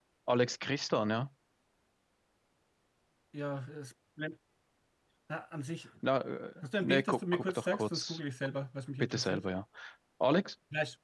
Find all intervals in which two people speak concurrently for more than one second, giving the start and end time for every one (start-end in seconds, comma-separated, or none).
6.8-8.2